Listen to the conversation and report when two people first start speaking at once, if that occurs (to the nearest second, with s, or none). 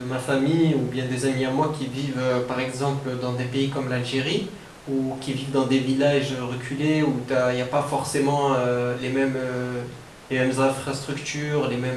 none